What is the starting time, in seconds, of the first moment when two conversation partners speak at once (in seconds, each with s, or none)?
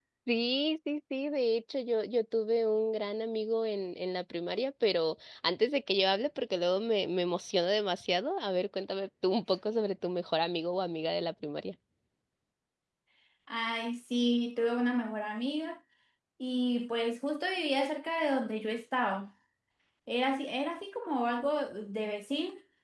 none